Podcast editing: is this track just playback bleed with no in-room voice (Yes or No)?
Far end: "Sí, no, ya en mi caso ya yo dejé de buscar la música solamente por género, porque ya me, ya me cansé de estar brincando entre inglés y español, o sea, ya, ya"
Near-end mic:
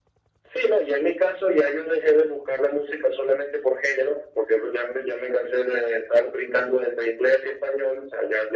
Yes